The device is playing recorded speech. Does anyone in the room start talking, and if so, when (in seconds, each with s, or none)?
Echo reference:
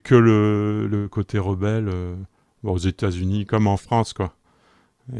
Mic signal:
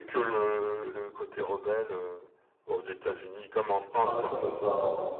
4.0 s